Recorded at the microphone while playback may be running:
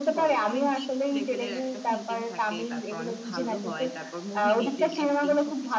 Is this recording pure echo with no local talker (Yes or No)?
No